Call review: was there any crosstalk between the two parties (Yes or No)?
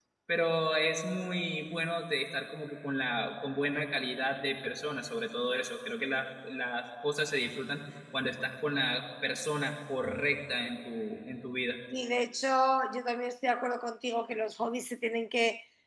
No